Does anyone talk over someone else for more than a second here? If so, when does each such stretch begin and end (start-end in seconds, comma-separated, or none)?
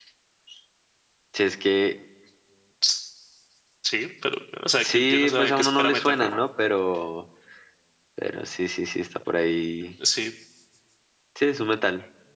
4.8-6.2